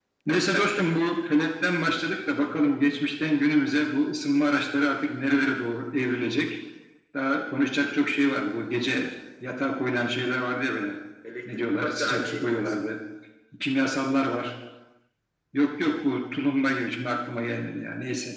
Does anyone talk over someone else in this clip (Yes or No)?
Yes